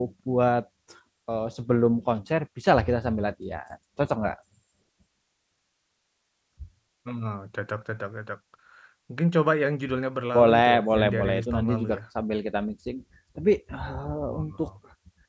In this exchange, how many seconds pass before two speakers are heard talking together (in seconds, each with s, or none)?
10.3 s